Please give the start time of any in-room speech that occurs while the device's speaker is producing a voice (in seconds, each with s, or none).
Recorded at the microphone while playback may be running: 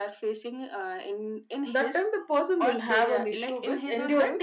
1.6 s